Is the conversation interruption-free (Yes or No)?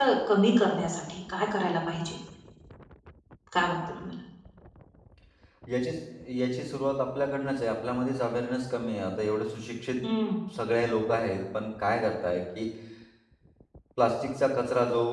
Yes